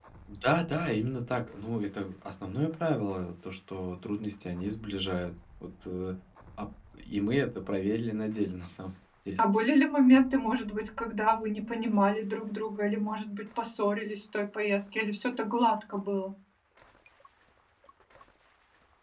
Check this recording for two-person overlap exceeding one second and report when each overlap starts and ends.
none

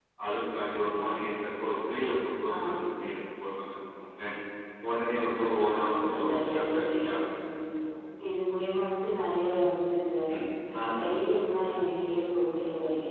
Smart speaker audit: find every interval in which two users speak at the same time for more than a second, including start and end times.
5.8-7.2

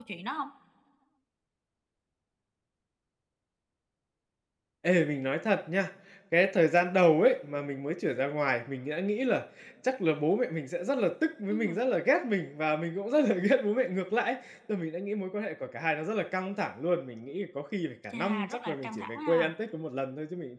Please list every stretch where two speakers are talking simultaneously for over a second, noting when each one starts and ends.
18.1-19.5

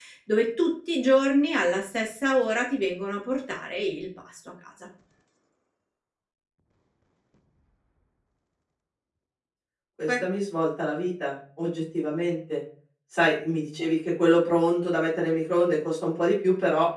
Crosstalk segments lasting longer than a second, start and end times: none

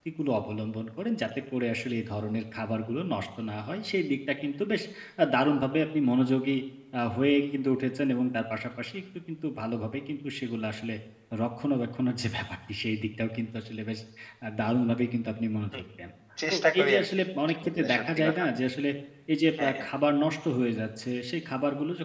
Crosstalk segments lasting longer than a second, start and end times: 16.5-18.4

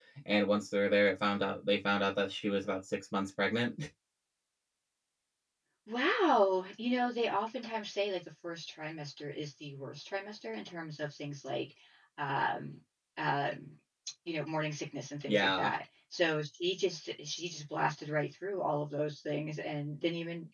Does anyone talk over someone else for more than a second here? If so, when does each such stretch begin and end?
none

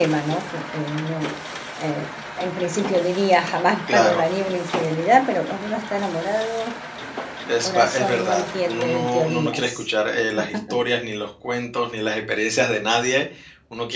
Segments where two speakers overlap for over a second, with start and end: 7.6-9.9

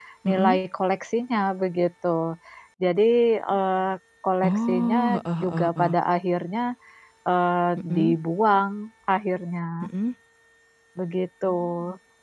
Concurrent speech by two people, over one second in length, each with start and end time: 4.5-6.0

